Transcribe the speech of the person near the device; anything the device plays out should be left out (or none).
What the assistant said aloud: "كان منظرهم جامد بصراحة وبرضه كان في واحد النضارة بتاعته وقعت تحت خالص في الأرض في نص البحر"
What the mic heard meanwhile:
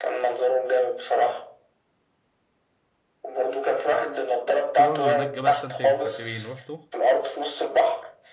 في برضه هناك جبل سانت كاترين روحته